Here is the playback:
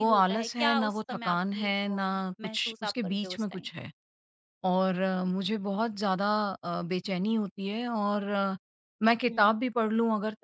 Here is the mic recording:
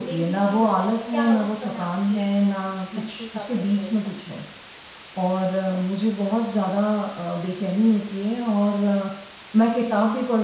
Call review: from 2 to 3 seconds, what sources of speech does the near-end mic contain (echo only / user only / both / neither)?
echo only